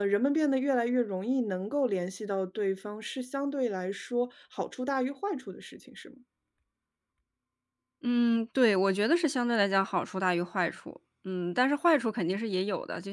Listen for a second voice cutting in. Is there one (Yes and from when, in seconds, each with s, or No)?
No